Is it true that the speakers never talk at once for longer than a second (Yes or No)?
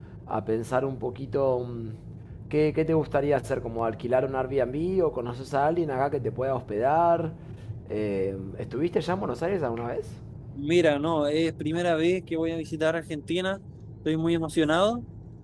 Yes